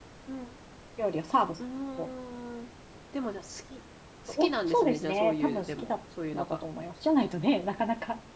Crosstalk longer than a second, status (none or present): present